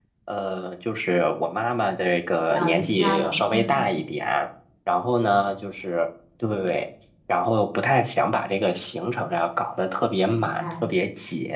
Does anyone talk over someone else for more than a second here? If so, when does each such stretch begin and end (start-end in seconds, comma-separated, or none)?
2.5-3.8